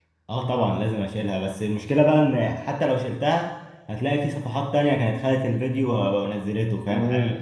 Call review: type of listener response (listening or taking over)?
taking over